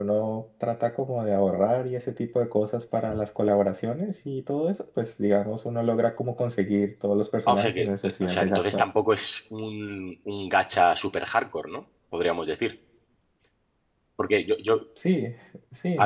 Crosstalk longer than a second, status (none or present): present